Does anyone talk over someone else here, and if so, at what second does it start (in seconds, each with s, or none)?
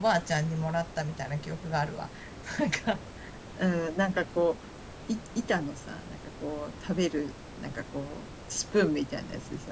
none